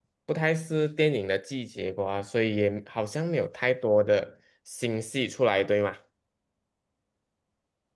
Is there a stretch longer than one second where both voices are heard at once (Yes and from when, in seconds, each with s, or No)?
No